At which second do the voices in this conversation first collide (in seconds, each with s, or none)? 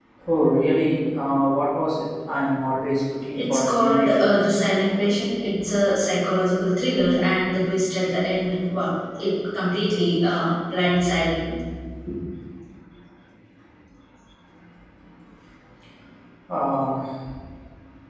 3.4 s